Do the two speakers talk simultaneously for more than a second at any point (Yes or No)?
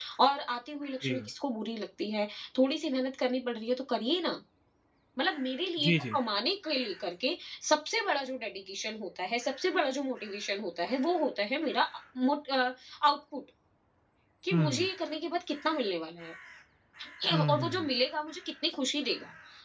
No